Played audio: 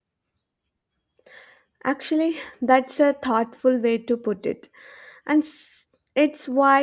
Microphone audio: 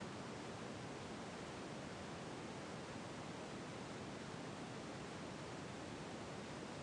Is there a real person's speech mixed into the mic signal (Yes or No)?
No